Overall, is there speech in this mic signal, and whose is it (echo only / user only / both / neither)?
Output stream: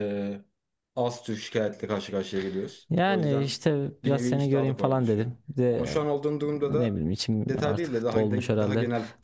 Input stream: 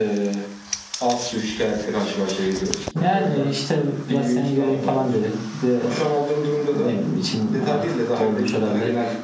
echo only